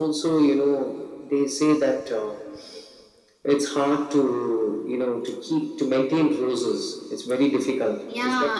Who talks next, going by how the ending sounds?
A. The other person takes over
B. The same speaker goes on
A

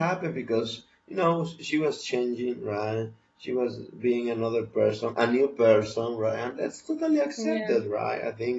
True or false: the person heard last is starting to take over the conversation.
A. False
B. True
A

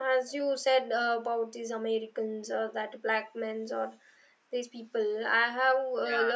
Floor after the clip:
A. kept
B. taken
A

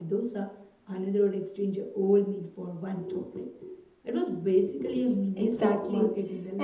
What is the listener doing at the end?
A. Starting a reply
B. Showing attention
A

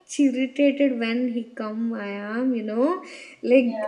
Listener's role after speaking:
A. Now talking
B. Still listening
B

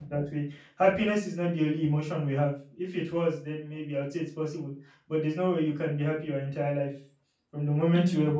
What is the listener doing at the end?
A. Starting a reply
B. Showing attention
B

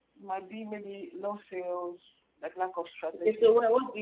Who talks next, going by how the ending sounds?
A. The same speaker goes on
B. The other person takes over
B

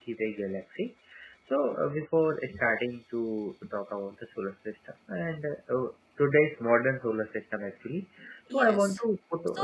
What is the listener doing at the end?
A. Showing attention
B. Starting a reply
B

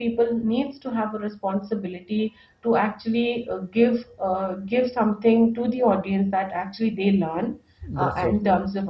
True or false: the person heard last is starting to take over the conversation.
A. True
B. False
B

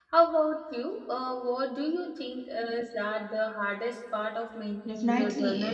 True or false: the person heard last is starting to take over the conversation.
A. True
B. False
A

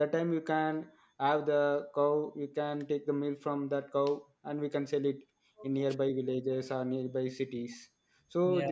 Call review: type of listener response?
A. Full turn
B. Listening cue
B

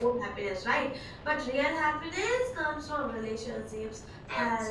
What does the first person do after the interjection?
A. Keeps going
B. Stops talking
A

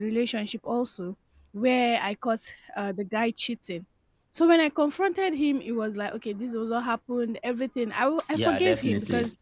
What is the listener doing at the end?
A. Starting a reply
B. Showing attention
B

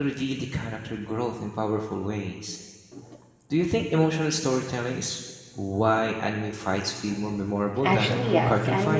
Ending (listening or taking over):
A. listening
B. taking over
B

